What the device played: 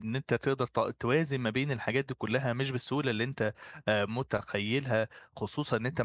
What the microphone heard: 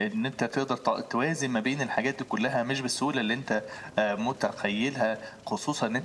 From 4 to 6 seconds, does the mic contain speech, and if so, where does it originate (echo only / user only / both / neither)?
echo only